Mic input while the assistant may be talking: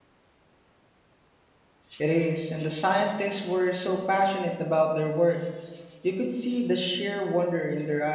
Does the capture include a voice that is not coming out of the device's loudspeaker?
Yes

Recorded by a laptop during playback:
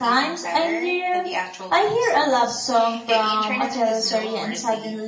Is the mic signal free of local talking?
Yes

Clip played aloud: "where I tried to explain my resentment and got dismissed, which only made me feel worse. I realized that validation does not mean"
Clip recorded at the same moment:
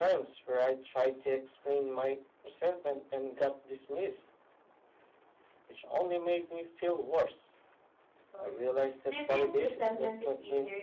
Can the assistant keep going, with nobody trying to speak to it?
No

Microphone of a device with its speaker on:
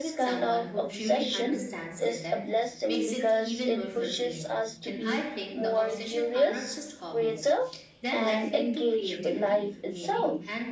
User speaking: Yes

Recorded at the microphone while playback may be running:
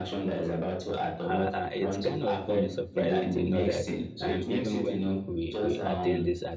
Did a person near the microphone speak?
Yes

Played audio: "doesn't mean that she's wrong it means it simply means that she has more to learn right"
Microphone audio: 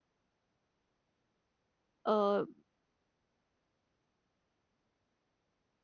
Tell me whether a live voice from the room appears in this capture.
Yes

